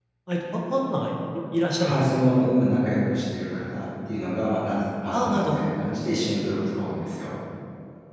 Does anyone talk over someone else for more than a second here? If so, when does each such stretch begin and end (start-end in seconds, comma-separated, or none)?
none